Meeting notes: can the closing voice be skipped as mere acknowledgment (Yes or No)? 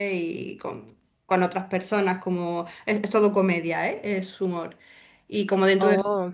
Yes